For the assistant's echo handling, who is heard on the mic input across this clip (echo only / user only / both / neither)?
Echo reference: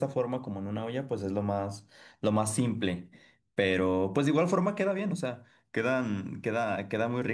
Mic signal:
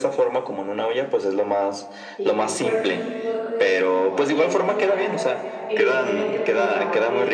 both